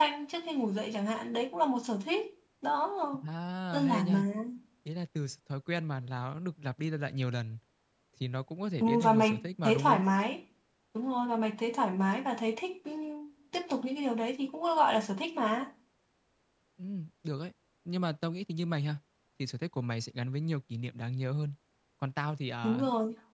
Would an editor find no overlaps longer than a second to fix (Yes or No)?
No